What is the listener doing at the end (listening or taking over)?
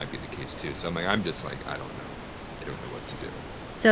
taking over